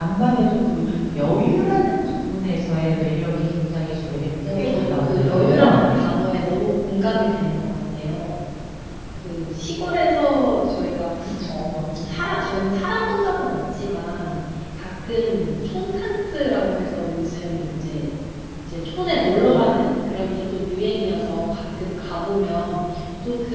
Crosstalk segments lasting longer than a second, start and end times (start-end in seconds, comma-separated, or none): 4.6-5.8